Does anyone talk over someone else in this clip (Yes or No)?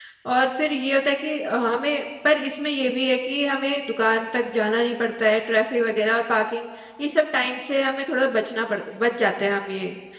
No